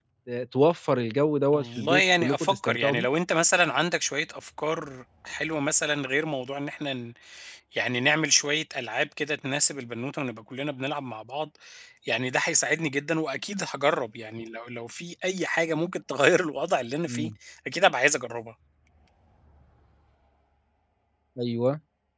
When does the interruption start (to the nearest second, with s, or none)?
2 s